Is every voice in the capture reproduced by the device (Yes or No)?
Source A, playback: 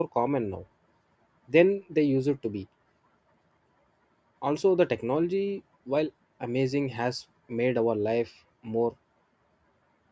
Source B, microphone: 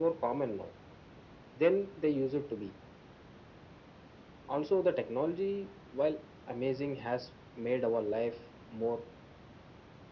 Yes